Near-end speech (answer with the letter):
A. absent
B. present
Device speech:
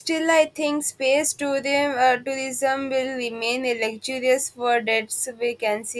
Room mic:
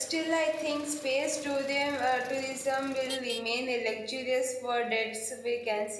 A